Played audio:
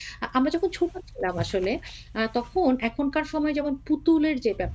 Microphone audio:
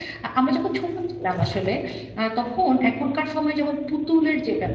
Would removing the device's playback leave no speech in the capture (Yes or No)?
Yes